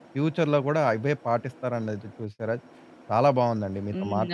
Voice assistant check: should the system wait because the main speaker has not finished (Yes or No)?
Yes